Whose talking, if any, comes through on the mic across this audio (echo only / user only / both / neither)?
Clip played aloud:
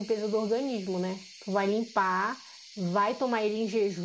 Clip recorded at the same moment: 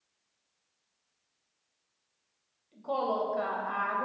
user only